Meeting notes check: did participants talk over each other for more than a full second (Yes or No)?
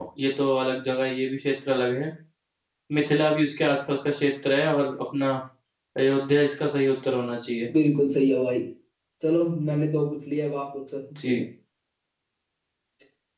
No